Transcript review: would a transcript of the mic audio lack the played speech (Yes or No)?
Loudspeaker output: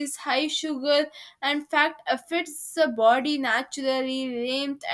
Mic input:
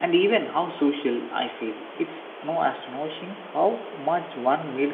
Yes